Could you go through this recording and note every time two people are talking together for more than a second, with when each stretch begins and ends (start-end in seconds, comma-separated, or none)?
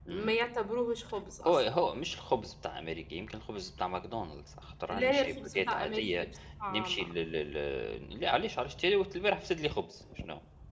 4.9-6.2